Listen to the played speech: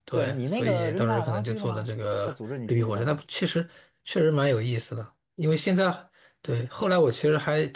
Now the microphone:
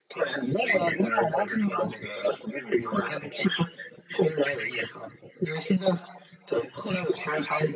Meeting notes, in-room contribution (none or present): none